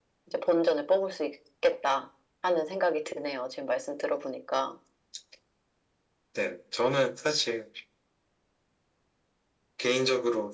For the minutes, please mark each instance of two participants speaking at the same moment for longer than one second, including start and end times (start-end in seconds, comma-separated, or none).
none